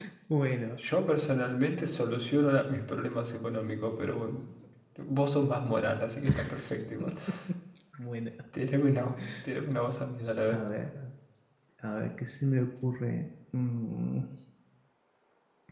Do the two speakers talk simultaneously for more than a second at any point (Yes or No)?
No